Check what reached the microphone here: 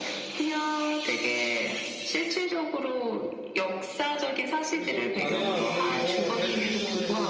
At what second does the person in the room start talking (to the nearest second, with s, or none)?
5 s